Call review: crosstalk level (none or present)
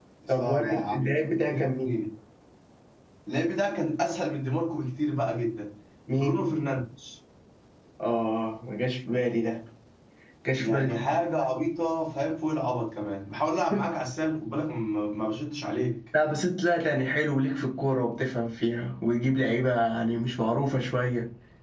present